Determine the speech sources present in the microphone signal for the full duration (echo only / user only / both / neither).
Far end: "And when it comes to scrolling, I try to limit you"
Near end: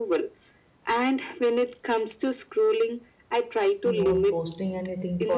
both